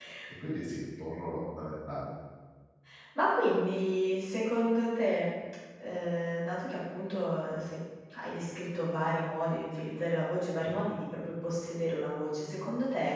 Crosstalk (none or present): none